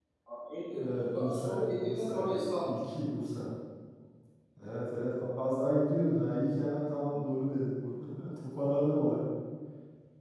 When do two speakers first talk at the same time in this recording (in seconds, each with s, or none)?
0.7 s